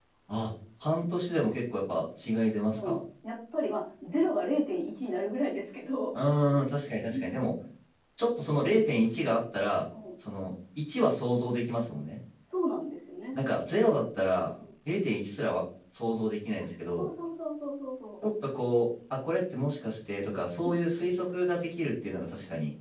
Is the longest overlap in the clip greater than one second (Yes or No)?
No